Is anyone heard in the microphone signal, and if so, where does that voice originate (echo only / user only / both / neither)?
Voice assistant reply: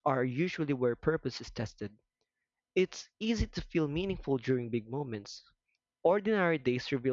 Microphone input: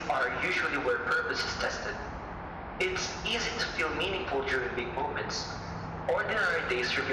echo only